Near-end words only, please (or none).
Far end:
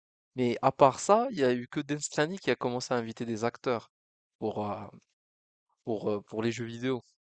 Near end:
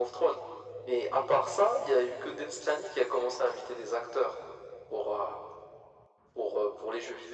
none